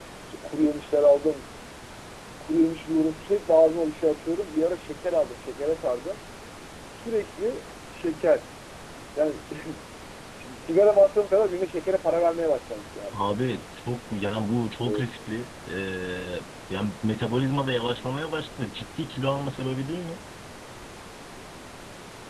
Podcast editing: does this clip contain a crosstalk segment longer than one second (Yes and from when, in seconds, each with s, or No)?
No